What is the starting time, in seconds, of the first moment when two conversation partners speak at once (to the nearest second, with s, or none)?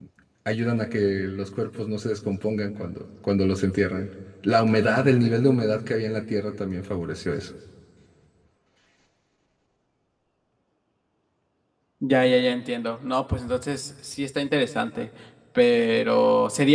none